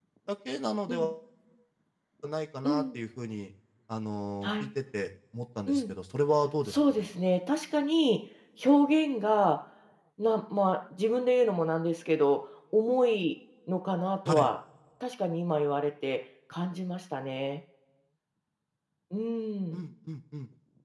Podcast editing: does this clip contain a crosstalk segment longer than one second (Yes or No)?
No